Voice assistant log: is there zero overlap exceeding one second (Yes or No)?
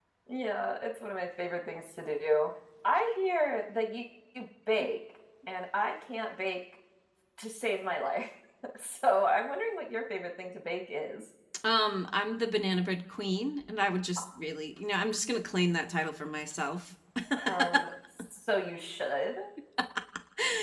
Yes